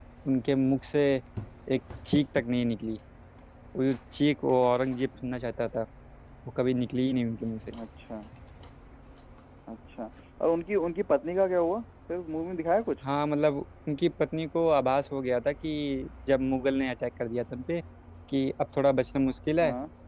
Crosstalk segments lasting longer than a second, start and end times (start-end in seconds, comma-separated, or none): none